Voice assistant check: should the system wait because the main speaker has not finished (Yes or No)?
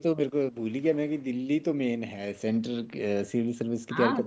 No